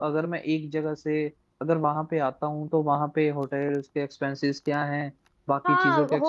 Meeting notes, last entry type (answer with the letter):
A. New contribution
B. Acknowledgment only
A